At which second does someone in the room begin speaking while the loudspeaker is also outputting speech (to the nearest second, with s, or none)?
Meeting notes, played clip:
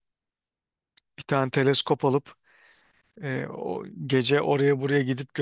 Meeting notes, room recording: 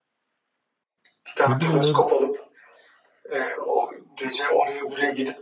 1 s